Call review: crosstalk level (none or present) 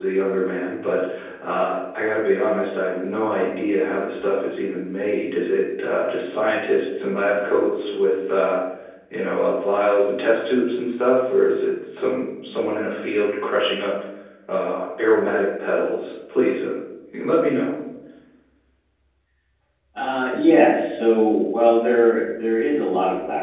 none